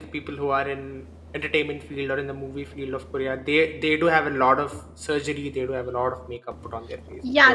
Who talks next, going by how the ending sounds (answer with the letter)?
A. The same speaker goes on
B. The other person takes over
B